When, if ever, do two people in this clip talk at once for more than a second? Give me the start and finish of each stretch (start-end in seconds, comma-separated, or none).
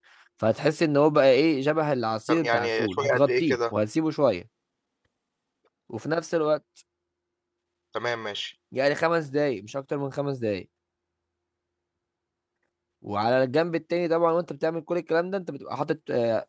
2.3-3.6